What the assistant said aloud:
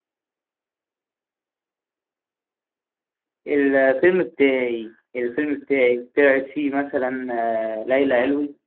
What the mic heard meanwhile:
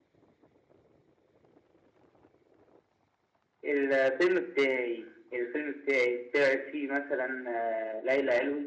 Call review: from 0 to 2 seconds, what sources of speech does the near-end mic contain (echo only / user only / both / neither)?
neither